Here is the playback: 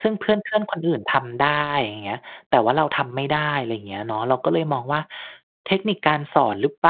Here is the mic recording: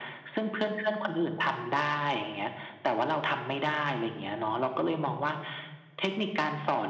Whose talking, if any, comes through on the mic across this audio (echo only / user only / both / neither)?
echo only